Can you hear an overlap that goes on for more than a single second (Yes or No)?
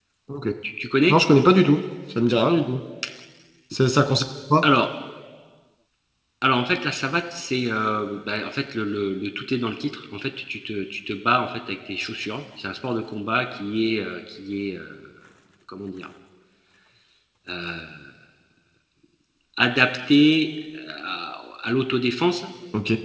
No